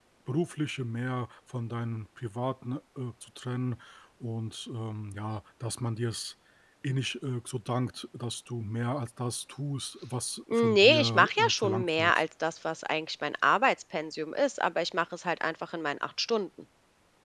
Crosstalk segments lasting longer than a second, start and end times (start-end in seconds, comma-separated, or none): 10.5-12.2